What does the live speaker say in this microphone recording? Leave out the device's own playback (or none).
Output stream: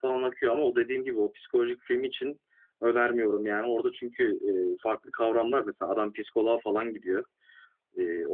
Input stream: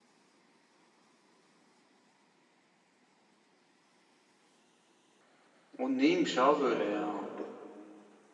o neymiş abi böyle ya? Bu-